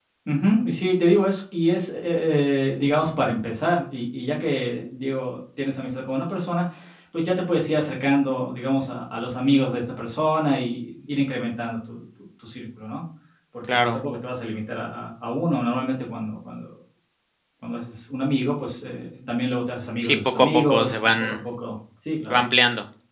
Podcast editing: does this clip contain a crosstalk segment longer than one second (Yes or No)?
Yes